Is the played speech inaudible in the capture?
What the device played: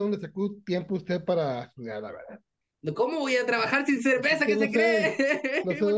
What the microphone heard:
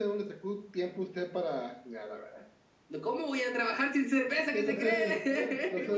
No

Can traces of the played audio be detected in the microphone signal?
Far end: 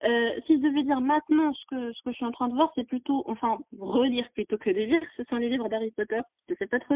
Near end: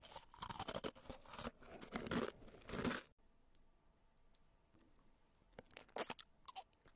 No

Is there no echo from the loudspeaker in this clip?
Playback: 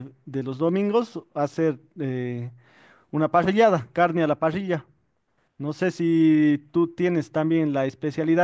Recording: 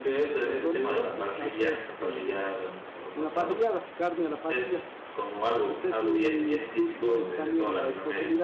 No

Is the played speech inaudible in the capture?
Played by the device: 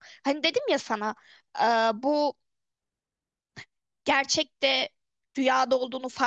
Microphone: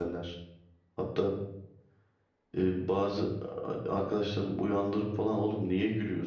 Yes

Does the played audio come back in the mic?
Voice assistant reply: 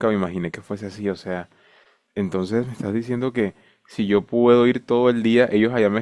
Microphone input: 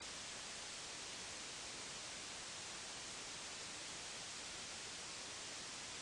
No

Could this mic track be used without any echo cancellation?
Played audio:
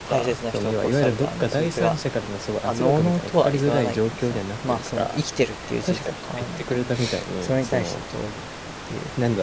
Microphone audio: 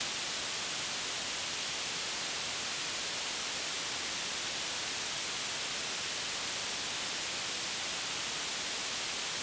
Yes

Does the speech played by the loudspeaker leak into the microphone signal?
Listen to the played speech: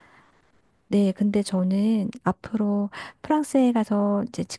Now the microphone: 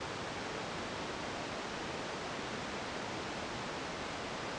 No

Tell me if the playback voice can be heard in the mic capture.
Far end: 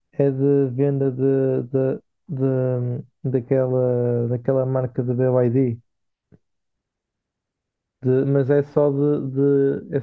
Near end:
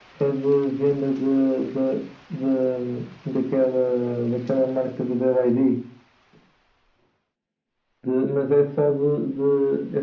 Yes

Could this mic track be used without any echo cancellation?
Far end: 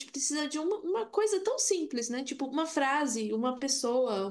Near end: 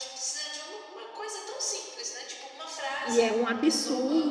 No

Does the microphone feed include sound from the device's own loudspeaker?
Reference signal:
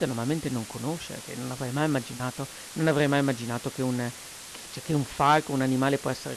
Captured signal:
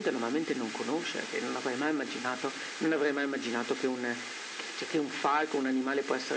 Yes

